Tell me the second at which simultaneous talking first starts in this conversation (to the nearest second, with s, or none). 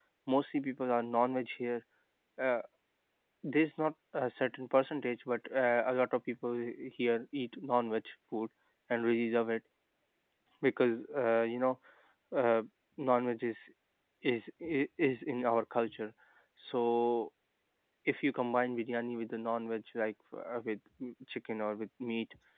none